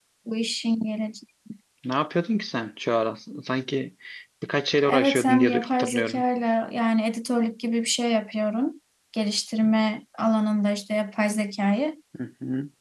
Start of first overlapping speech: 4.9 s

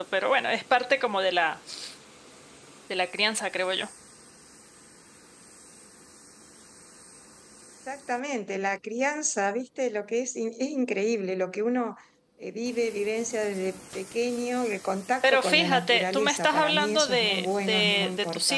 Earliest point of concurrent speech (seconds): 15.2 s

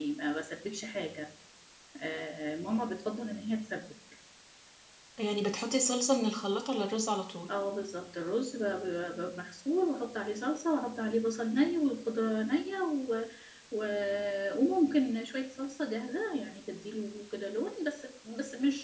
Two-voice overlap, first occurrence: none

